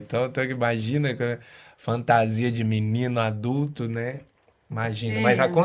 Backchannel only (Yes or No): Yes